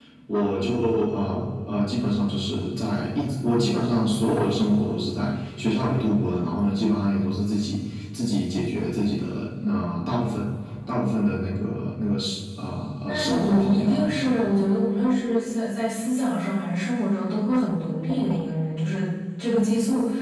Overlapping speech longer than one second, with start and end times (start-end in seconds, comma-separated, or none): 13.1-14.2